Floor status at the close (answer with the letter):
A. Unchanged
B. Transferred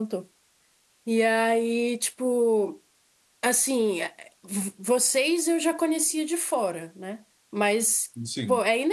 A